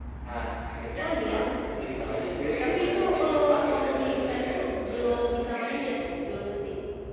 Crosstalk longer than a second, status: present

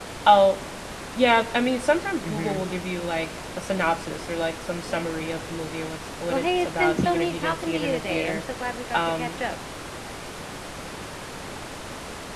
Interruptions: present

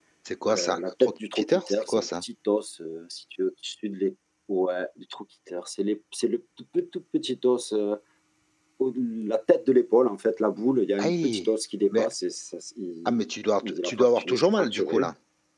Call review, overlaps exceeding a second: present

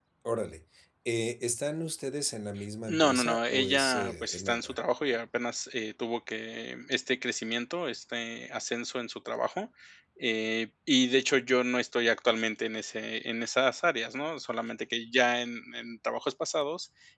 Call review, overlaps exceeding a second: present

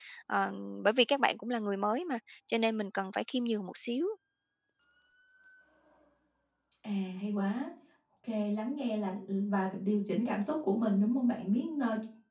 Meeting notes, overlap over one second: none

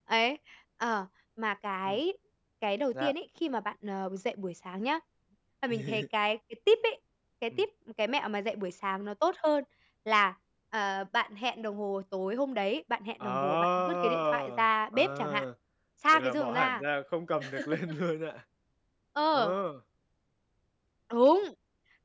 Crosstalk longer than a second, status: present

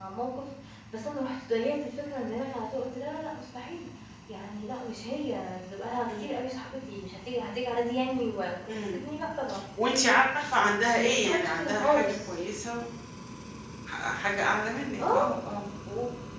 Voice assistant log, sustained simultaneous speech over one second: present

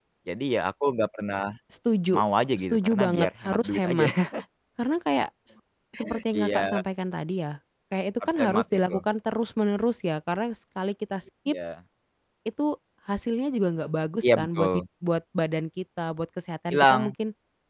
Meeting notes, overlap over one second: present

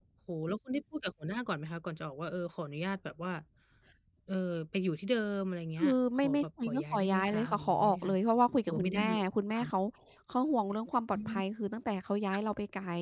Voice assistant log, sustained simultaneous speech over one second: present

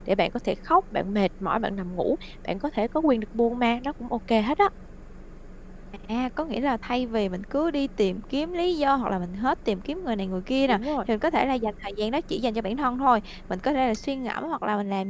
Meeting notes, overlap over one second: none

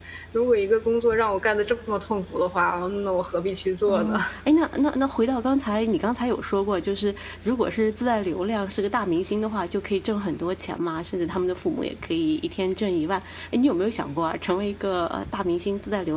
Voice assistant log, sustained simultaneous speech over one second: none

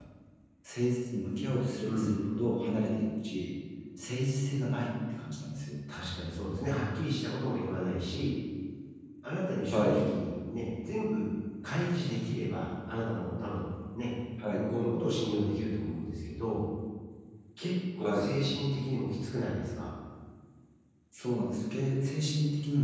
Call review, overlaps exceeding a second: none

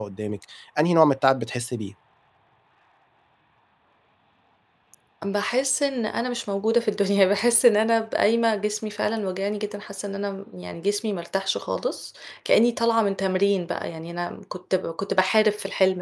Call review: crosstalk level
none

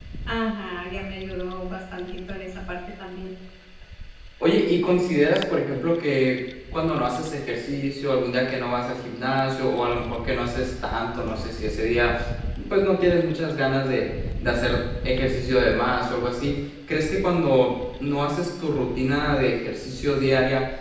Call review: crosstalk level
none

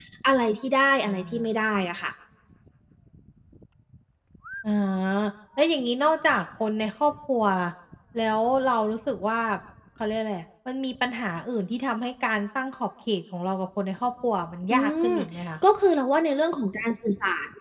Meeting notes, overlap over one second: none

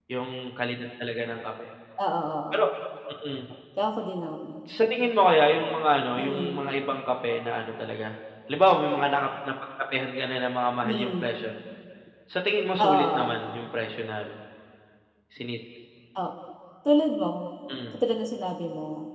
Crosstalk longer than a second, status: none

